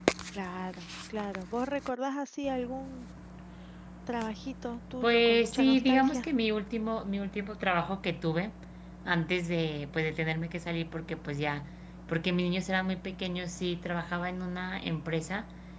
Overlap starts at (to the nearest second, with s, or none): 5 s